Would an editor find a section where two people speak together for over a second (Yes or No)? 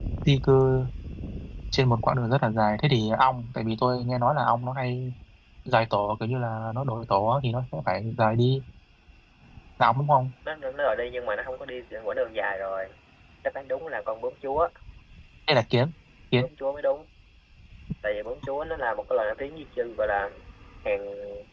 No